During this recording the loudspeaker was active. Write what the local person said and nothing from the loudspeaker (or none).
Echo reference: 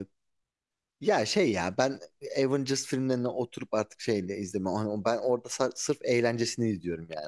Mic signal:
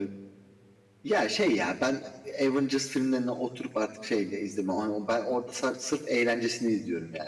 none